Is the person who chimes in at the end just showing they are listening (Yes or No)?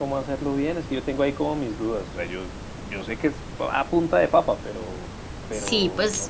No